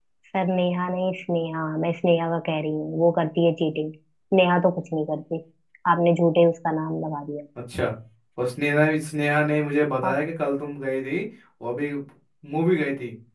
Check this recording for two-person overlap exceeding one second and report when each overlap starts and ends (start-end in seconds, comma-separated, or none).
none